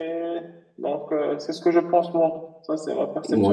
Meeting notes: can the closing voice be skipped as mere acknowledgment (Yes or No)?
No